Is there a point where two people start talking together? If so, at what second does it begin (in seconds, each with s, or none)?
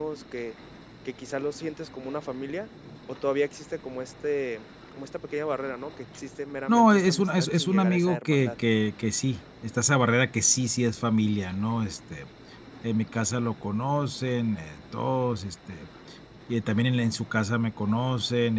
6.7 s